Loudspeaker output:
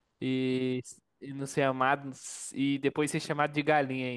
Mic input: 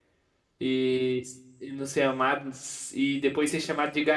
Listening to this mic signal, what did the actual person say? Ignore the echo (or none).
none